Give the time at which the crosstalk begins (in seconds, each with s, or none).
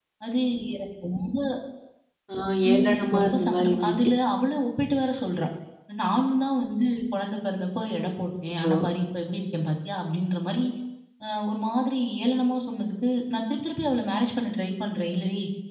2.7 s